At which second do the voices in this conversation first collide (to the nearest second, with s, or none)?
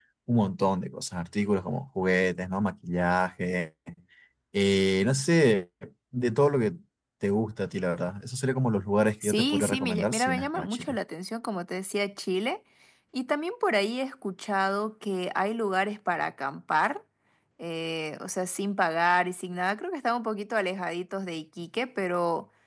9 s